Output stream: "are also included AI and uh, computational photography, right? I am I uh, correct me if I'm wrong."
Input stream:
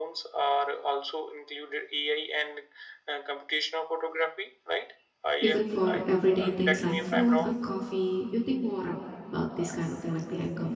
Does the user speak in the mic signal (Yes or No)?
Yes